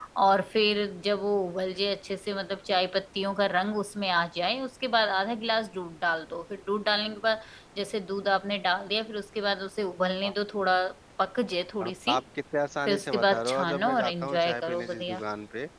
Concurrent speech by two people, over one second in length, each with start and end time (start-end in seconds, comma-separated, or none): 12.9-15.2